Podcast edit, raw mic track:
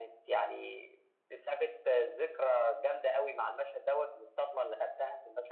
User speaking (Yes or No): No